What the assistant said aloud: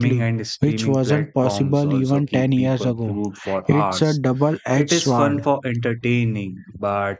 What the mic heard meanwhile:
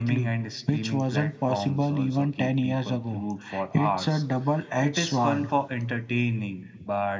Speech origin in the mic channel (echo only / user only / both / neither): echo only